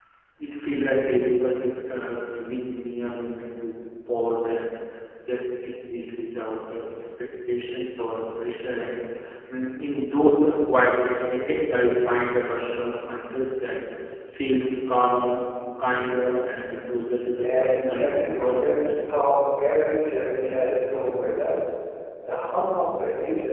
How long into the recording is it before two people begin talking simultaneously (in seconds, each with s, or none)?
17.4 s